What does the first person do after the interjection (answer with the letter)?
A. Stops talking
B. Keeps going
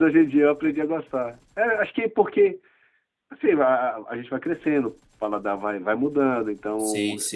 B